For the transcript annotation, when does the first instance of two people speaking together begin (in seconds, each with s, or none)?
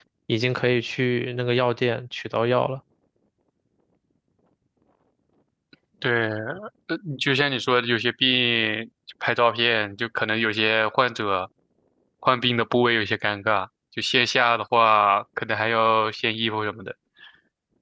none